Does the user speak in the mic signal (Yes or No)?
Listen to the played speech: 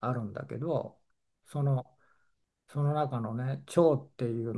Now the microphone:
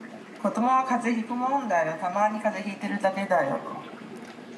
Yes